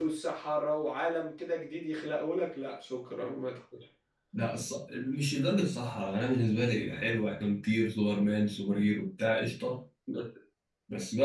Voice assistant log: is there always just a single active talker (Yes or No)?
Yes